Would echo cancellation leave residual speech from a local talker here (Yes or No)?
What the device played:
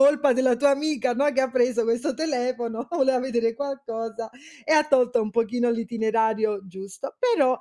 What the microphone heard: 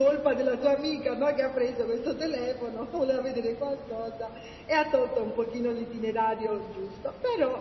No